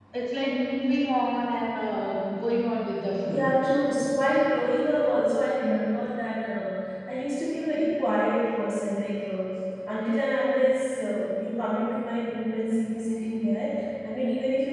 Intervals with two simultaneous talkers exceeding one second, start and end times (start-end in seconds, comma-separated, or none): none